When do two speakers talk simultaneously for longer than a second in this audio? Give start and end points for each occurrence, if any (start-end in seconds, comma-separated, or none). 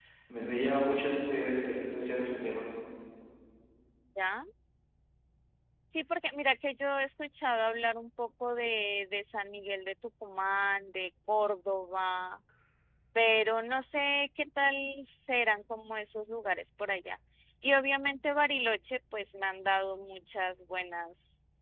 none